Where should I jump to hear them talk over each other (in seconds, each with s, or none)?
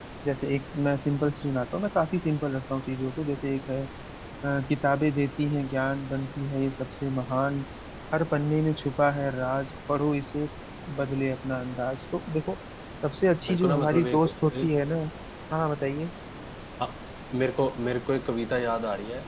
13.5 s